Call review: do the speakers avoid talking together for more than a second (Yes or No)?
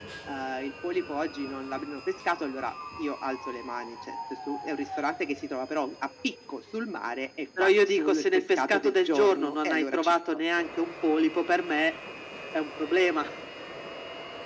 No